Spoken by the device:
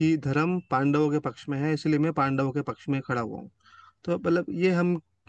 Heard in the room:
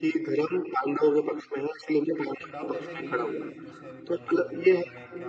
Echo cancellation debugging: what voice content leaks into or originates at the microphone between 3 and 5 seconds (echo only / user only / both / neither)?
both